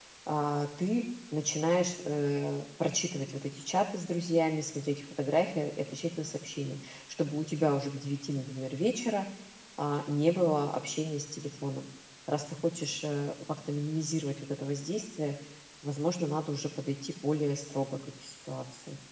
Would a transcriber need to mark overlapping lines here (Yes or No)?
No